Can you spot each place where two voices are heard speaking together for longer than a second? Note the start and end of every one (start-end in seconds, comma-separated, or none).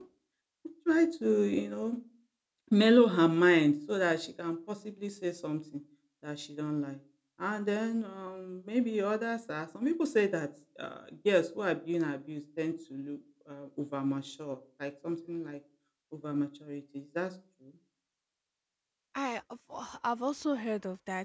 none